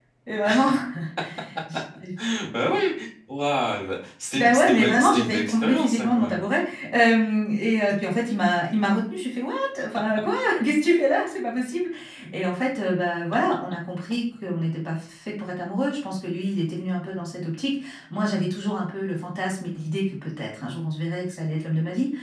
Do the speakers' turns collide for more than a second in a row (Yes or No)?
Yes